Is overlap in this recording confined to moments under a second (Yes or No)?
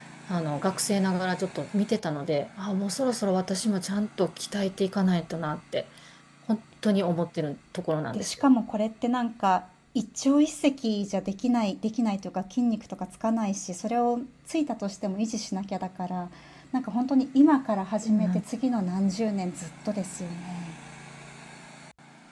Yes